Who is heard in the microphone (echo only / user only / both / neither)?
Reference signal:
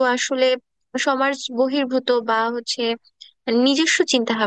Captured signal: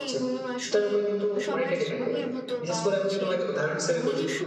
both